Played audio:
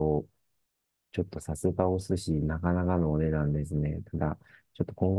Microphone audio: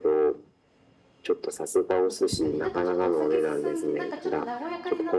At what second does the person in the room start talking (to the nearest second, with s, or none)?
2 s